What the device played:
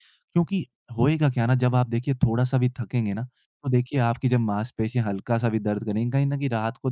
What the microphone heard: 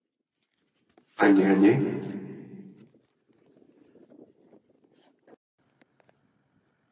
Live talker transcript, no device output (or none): हाँ जी हाँ जी